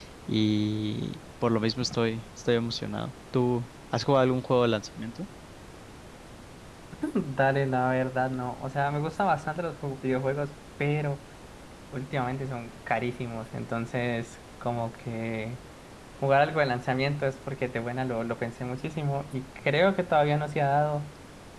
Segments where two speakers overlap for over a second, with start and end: none

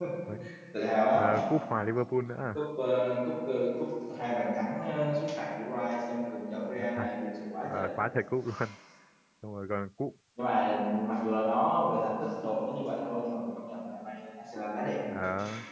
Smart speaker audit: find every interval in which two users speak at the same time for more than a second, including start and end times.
none

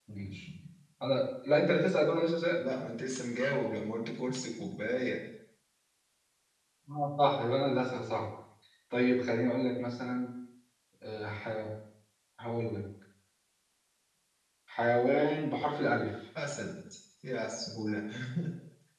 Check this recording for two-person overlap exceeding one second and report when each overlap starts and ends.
none

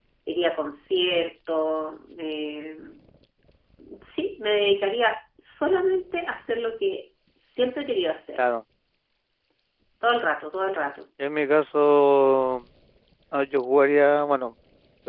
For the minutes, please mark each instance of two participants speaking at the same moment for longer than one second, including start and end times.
none

